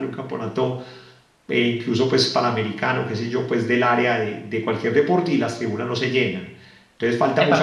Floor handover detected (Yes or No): Yes